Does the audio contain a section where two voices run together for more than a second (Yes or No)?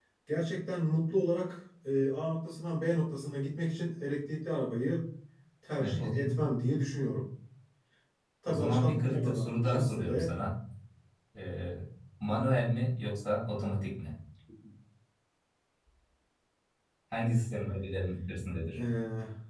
Yes